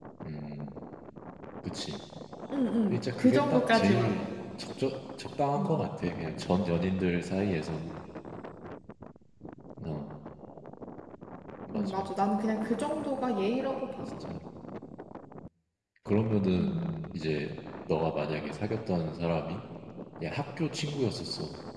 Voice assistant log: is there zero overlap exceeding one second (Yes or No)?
No